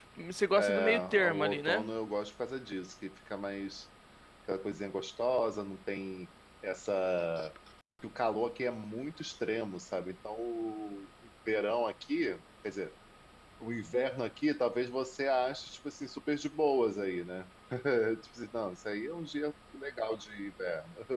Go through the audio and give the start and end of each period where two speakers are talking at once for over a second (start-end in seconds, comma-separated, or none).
0.5-1.9